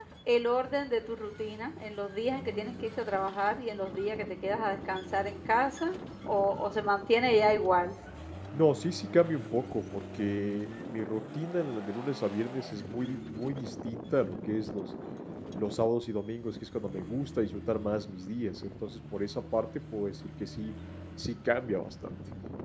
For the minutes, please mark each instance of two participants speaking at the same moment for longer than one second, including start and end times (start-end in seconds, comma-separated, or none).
none